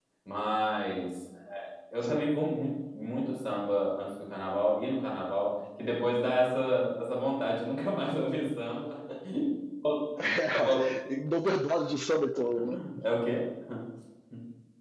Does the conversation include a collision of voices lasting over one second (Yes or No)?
No